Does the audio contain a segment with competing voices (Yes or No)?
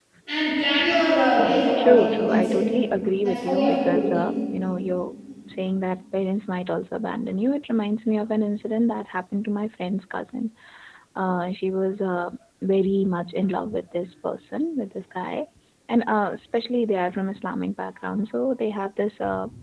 Yes